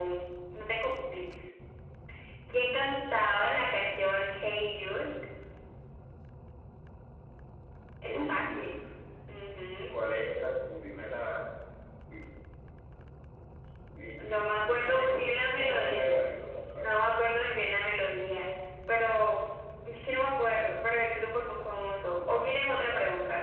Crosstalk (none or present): present